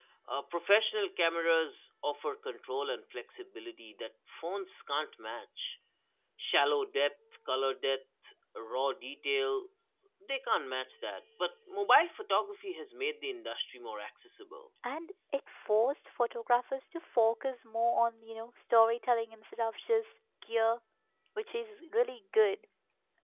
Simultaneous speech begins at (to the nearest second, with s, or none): none